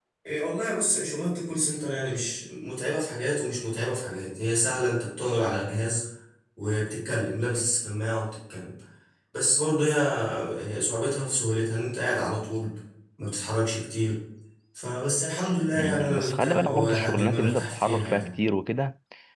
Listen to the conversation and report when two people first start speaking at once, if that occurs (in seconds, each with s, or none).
15.6 s